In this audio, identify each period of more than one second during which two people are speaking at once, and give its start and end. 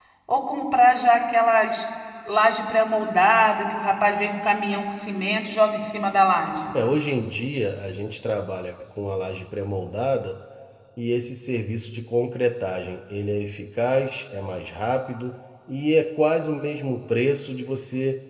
none

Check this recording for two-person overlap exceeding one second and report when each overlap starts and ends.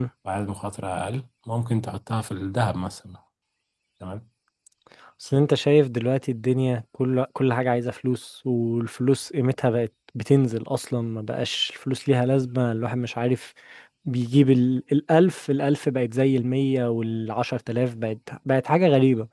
none

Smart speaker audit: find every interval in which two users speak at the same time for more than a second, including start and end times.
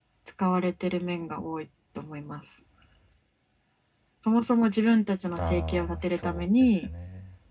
5.4-6.9

